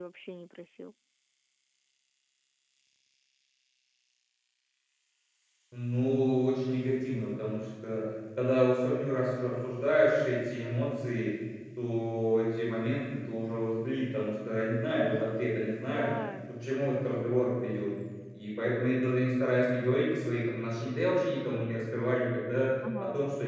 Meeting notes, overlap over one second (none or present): none